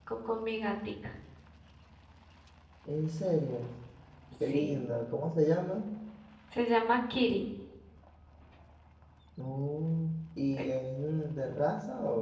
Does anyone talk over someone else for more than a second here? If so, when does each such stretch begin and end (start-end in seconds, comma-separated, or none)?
none